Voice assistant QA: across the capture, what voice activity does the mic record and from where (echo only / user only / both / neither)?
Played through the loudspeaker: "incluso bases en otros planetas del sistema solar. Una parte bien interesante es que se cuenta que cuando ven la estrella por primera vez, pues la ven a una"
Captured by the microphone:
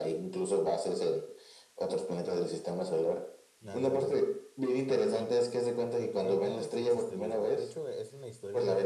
both